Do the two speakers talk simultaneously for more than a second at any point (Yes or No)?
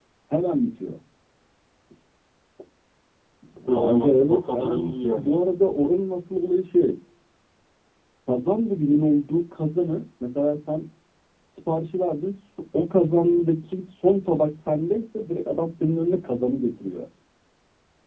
Yes